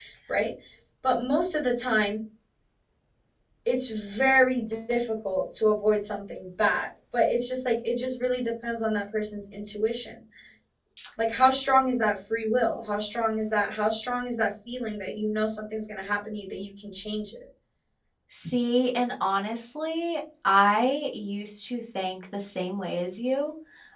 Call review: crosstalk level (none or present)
none